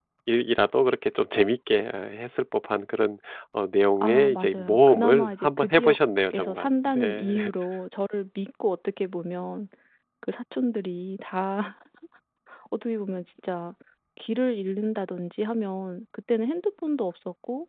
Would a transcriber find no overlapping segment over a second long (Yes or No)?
No